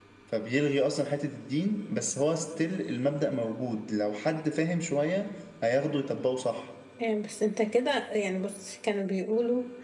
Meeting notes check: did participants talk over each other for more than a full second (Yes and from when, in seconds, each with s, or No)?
No